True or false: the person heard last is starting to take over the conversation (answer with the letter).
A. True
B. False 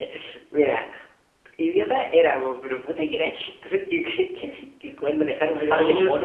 B